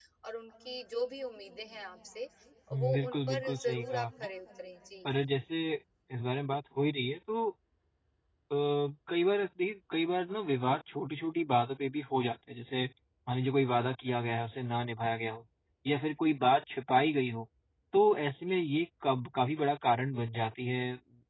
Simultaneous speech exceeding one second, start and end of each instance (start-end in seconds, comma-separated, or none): 2.7-4.1